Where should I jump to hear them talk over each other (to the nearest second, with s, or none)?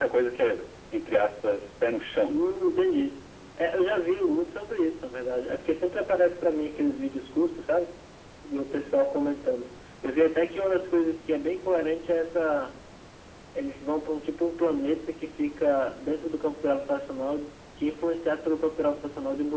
none